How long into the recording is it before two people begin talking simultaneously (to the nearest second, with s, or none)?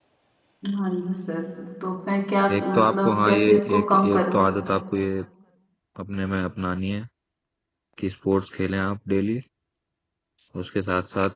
3 s